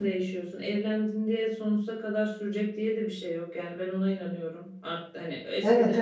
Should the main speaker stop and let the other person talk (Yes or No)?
No